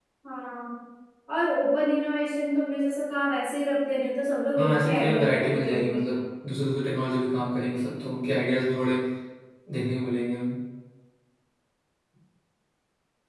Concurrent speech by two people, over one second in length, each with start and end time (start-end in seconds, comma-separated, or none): 4.5-6.0